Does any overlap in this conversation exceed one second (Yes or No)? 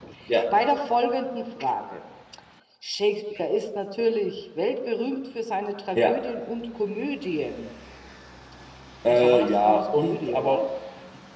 Yes